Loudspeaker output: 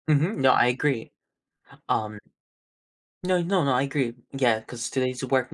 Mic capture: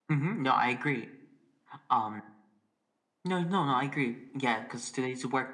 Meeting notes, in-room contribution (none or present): none